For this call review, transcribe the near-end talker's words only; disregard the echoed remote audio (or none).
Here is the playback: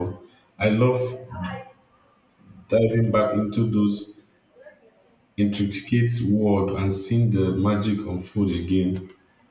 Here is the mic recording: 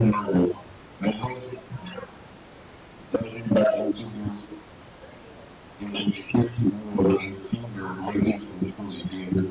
none